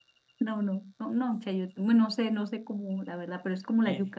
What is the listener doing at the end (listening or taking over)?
listening